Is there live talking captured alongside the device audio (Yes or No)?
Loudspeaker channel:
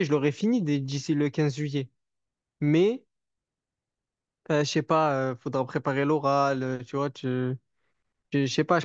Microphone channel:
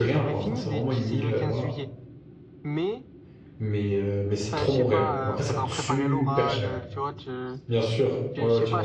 Yes